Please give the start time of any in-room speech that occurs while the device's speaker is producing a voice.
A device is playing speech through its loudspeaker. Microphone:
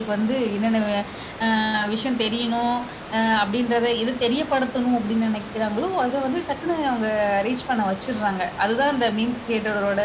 none

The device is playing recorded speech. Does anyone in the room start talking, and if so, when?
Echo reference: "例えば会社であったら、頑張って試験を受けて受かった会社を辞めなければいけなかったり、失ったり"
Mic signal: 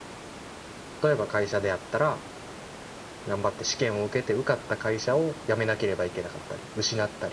none

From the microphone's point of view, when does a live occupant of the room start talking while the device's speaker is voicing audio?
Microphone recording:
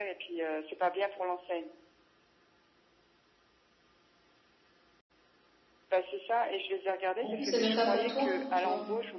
7.2 s

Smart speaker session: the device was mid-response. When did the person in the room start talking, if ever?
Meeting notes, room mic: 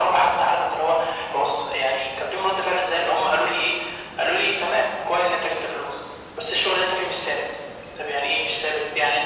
none

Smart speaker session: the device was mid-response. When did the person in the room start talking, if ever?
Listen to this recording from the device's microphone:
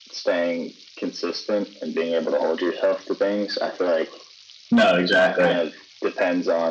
4.7 s

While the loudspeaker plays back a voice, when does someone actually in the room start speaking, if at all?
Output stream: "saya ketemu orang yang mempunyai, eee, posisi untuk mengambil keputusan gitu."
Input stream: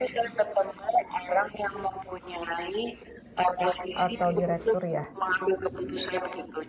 4.0 s

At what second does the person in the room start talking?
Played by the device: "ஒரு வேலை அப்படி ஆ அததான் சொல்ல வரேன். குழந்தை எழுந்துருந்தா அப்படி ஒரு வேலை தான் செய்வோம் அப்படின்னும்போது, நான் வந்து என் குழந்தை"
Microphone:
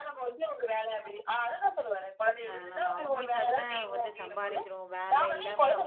2.5 s

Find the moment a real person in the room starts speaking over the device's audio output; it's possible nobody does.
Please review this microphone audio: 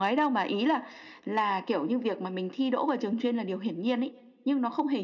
none

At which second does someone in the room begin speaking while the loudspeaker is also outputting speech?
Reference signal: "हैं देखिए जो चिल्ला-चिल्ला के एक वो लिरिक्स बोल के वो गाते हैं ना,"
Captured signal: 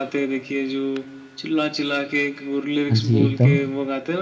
2.9 s

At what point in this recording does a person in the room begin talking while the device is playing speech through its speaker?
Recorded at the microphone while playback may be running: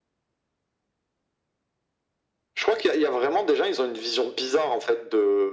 none

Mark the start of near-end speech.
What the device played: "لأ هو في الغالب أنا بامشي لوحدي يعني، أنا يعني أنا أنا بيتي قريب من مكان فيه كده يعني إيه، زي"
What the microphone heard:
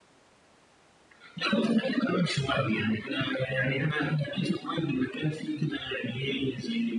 none

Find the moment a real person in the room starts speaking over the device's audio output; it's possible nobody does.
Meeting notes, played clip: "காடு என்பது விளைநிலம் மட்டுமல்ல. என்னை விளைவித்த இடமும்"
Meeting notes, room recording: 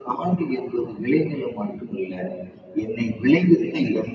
none

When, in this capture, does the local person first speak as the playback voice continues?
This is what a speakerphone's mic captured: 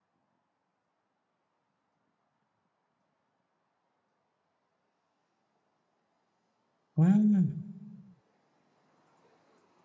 7.0 s

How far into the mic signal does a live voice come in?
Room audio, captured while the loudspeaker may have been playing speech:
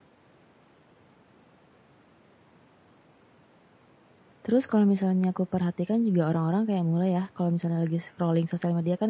4.4 s

